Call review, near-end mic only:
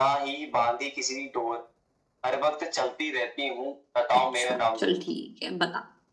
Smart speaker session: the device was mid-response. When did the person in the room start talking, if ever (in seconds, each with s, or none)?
4.1 s